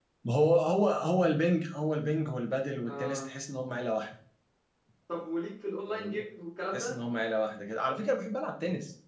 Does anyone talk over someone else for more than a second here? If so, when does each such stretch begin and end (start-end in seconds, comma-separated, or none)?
none